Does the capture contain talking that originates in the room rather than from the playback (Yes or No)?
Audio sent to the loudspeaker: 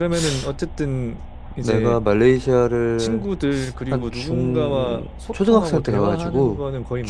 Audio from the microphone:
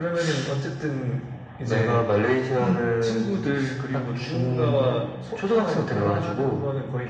Yes